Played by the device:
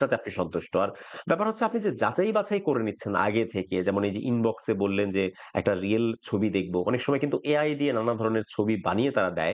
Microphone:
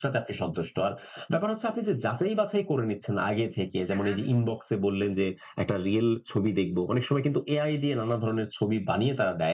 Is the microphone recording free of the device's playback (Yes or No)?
No